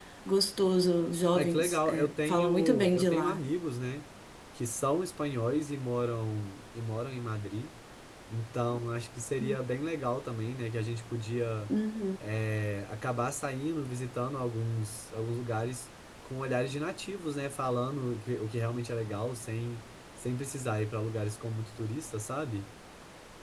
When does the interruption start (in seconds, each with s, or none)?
1.3 s